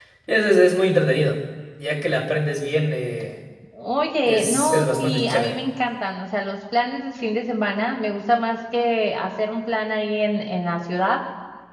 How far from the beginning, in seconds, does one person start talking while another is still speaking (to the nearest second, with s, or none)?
4 s